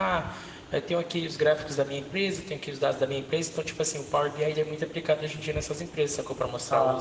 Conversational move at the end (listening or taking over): taking over